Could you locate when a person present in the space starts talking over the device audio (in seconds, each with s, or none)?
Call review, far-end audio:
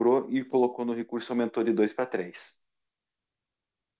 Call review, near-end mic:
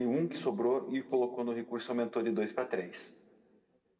none